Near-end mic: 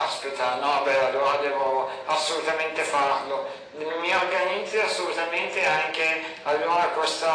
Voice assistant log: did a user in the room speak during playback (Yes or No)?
No